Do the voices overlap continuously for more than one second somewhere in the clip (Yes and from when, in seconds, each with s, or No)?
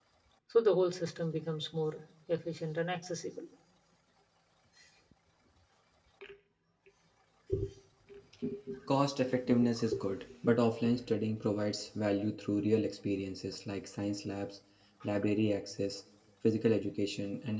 No